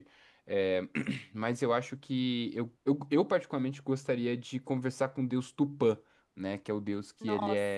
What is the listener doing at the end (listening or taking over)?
listening